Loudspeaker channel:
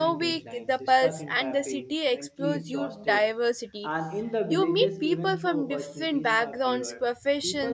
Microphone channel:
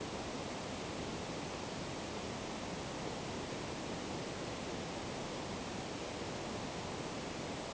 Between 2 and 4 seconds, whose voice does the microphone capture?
neither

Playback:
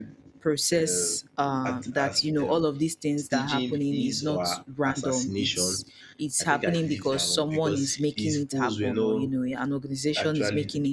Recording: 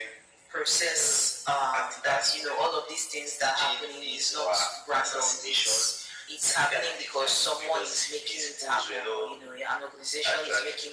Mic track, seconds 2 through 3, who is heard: echo only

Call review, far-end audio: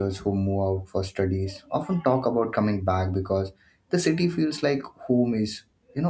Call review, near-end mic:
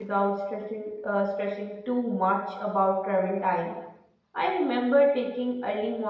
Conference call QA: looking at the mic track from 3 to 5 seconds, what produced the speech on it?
user only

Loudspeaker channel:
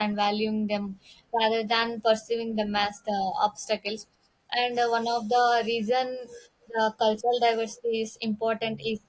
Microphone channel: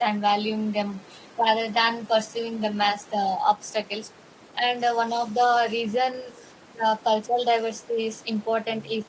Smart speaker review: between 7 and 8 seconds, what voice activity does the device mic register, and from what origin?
echo only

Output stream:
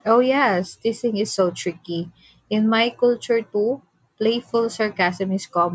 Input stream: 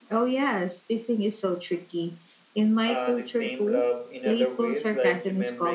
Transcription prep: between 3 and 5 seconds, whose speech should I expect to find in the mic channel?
both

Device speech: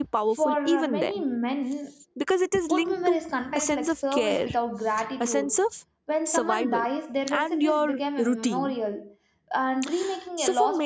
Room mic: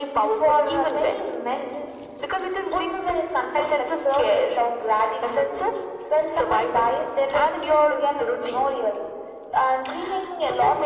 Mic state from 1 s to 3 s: echo only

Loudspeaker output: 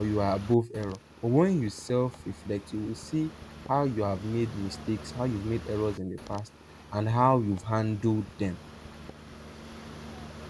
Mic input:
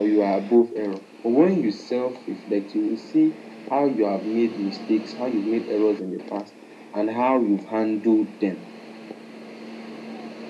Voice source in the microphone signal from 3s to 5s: echo only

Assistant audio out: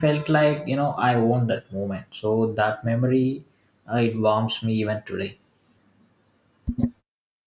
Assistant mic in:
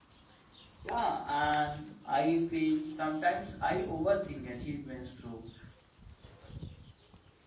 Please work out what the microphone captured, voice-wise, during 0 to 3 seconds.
user only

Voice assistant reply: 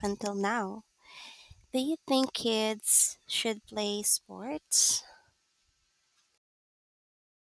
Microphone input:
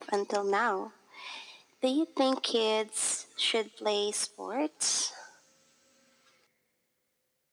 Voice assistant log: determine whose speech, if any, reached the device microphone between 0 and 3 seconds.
echo only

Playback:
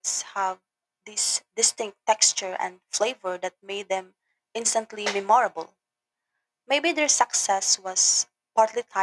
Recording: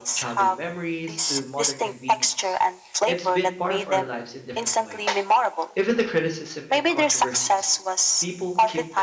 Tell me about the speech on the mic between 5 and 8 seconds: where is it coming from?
both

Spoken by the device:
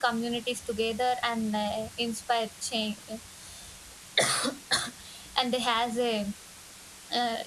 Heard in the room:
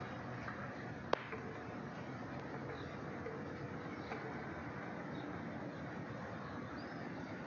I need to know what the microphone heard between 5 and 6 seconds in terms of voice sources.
neither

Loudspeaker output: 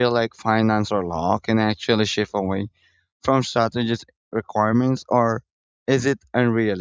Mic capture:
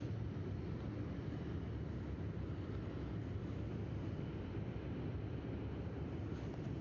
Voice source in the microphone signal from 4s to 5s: neither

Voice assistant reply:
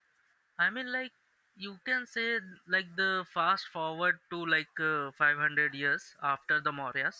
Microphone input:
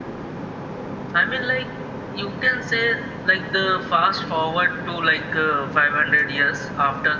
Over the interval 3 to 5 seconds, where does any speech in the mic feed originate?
echo only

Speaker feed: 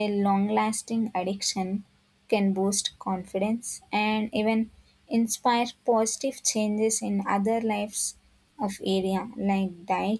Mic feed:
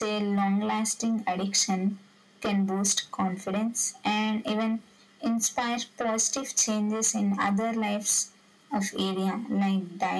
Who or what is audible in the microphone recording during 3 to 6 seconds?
echo only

